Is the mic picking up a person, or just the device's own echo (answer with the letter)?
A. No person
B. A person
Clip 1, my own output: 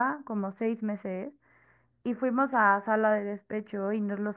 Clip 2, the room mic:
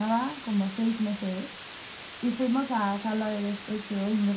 A